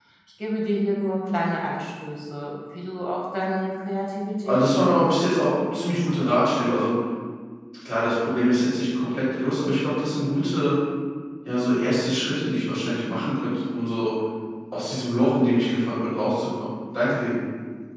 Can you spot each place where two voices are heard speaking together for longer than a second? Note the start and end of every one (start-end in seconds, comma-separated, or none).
4.5-6.1